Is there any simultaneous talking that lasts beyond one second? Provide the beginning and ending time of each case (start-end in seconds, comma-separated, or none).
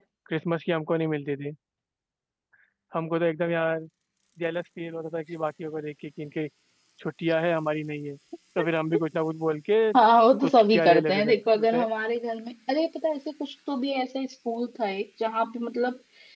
10.4-11.8